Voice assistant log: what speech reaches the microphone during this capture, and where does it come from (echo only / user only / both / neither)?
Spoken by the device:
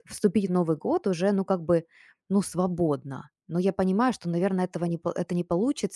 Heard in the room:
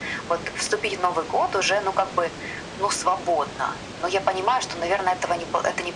echo only